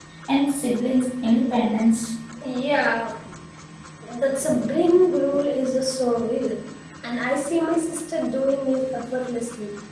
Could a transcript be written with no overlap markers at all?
Yes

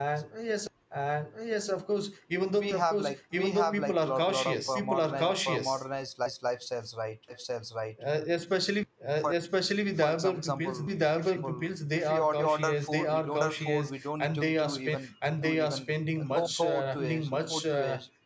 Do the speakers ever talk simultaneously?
Yes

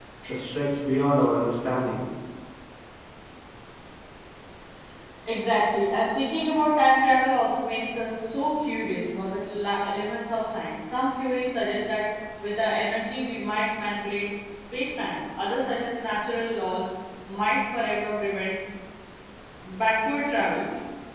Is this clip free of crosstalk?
Yes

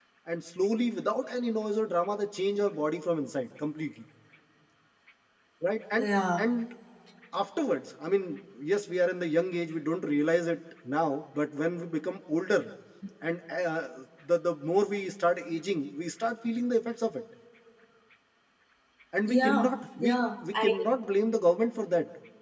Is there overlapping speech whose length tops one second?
Yes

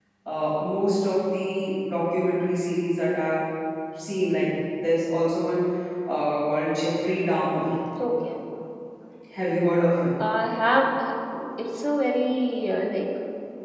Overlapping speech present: No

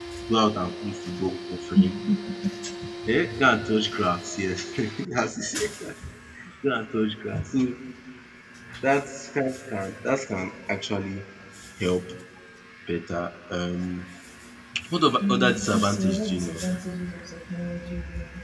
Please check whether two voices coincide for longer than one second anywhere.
Yes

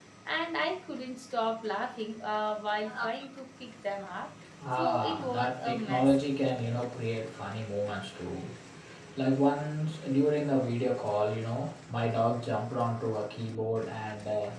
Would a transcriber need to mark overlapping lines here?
Yes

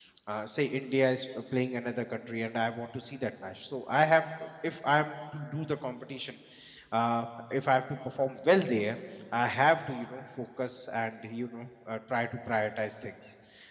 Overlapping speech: No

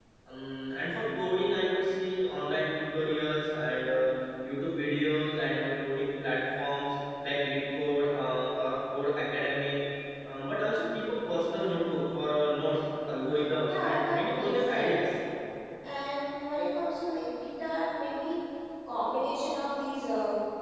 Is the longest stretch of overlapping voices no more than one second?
No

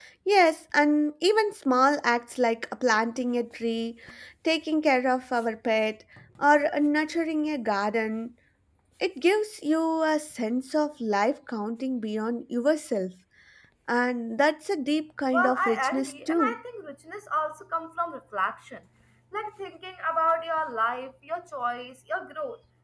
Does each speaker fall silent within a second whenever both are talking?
No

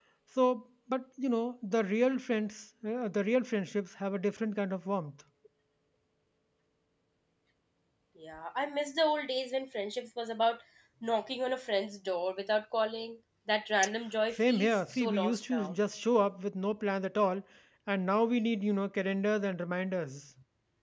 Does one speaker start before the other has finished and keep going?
Yes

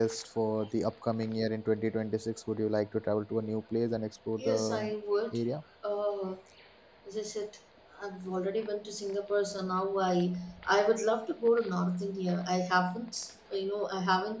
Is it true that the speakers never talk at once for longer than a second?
Yes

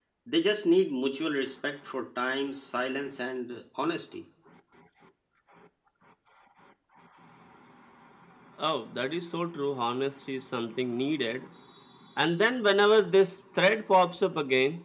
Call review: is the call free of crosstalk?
Yes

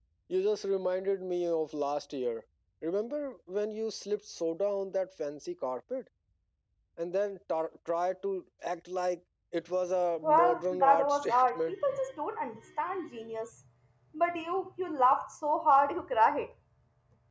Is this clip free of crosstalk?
No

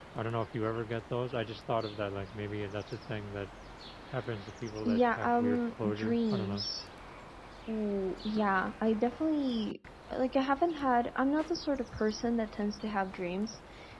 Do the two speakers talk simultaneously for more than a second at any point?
Yes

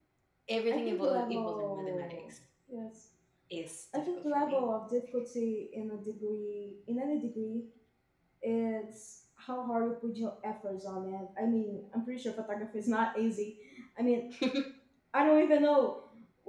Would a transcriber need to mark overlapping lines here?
Yes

